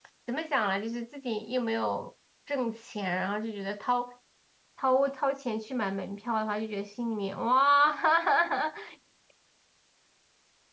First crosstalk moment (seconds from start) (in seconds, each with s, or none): none